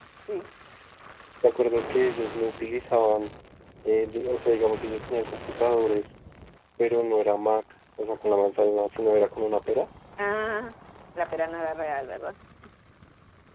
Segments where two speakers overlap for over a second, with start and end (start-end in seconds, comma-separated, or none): none